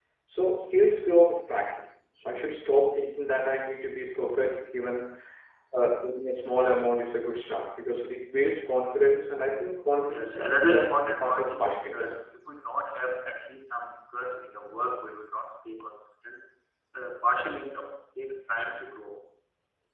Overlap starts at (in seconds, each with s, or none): 10.1 s